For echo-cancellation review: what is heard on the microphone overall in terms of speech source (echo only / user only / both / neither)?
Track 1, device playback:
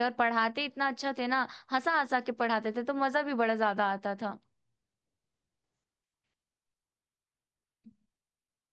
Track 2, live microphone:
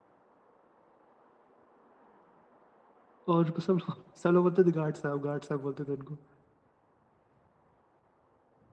user only